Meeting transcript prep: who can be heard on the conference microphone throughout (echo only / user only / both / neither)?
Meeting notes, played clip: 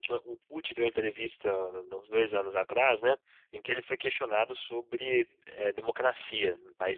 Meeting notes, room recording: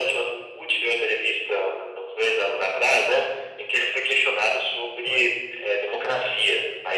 both